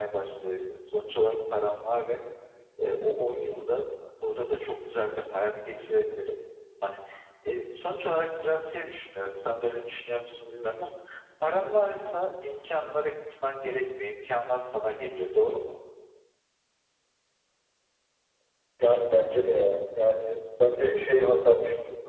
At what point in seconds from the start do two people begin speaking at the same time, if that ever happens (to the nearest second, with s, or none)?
none